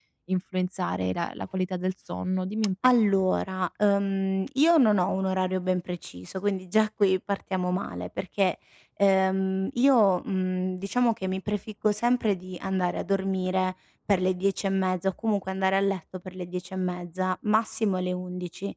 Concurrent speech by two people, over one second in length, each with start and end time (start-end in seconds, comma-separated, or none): none